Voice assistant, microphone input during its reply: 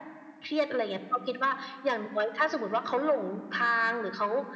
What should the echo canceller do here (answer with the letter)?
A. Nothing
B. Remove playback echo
B